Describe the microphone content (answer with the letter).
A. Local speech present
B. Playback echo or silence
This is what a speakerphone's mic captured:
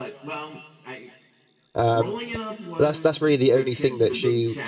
A